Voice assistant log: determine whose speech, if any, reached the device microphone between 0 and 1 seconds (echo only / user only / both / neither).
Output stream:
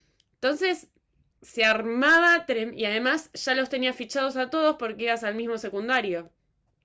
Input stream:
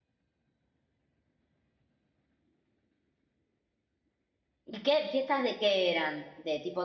neither